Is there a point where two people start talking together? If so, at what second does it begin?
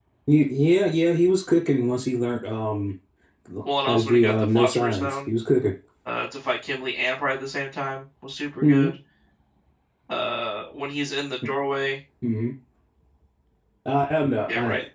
3.9 s

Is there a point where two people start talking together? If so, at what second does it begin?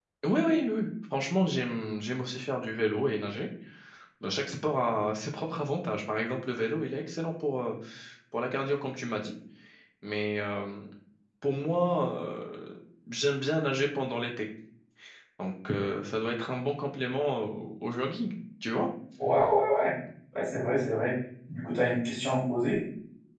none

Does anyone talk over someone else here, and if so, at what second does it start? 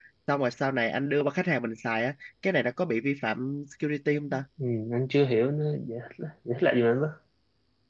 none

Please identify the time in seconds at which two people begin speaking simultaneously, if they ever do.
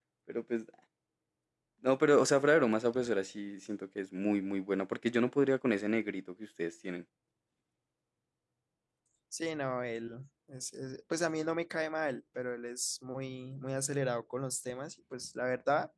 none

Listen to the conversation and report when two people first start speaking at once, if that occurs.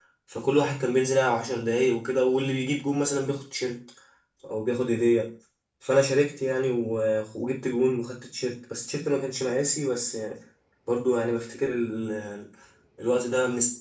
none

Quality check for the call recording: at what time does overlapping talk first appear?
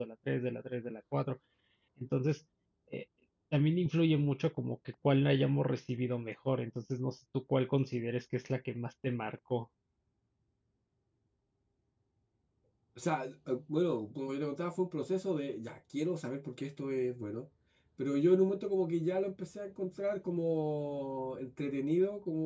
none

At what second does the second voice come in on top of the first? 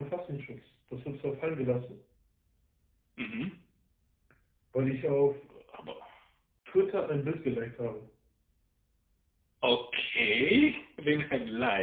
none

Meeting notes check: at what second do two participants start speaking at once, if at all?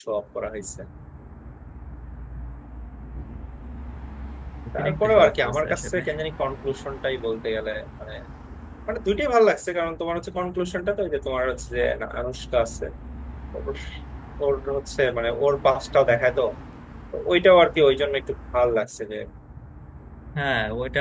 4.8 s

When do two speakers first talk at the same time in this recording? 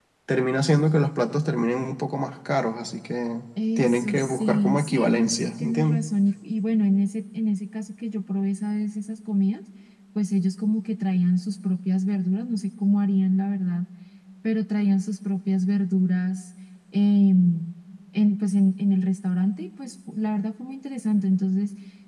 3.6 s

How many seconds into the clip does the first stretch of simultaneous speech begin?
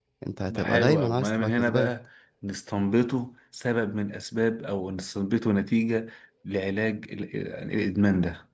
0.6 s

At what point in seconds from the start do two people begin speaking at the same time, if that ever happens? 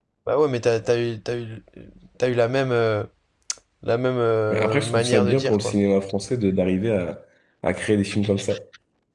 4.5 s

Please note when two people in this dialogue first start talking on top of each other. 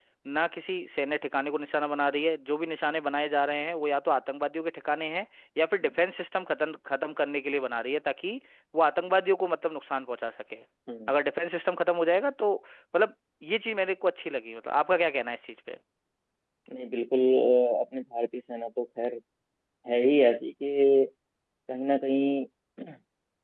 none

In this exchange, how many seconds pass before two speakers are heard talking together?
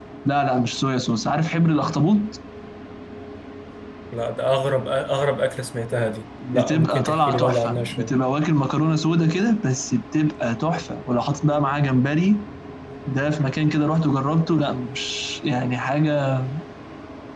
6.4 s

